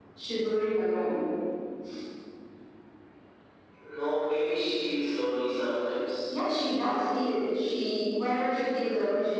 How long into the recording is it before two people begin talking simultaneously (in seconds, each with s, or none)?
none